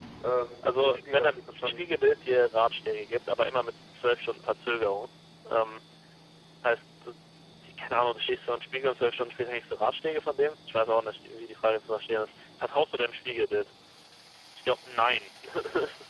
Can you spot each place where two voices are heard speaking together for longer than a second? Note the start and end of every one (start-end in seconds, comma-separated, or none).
0.6-1.9